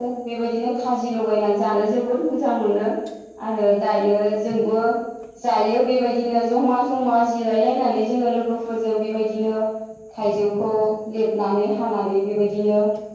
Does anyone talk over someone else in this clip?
No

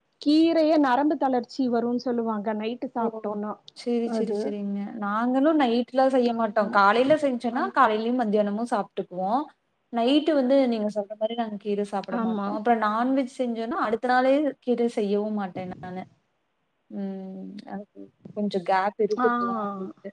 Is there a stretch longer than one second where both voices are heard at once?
No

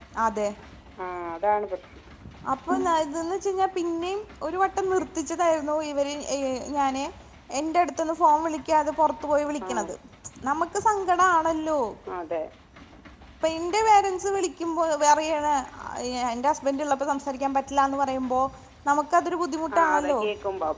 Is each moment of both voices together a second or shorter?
Yes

